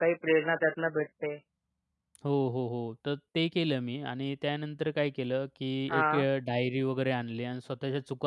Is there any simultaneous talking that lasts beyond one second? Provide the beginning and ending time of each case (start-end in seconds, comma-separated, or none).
none